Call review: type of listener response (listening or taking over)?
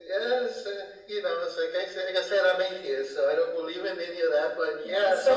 taking over